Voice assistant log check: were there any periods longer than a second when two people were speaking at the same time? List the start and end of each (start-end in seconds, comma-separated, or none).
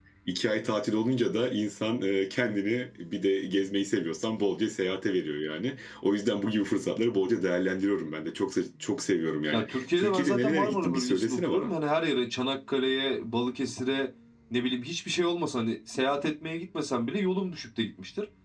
9.5-11.7